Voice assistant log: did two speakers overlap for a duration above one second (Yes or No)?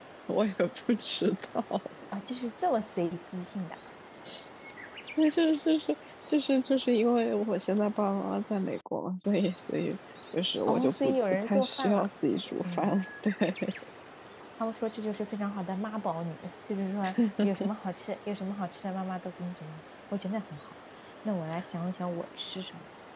Yes